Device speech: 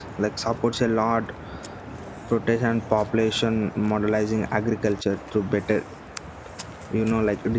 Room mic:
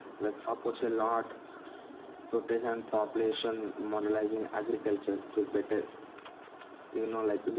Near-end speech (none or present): none